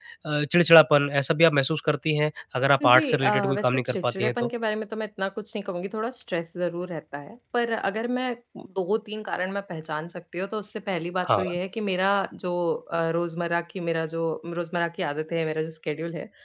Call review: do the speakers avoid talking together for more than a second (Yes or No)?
No